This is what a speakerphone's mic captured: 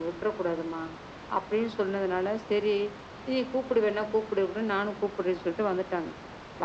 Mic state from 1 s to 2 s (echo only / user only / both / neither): echo only